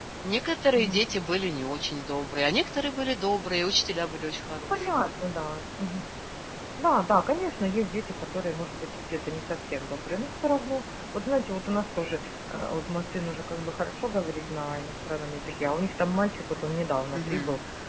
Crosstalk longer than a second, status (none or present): none